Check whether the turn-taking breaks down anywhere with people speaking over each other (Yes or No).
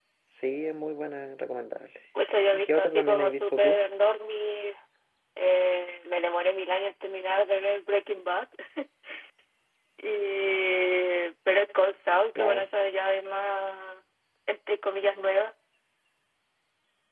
Yes